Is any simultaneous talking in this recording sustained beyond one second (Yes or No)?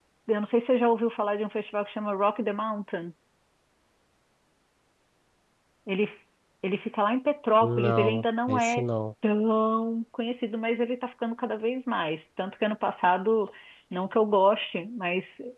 Yes